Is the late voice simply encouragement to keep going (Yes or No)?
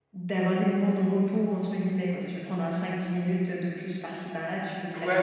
No